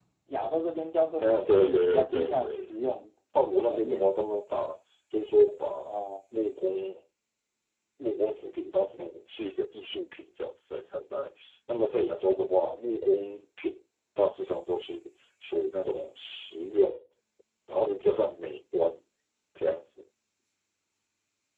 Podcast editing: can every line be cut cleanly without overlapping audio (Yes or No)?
No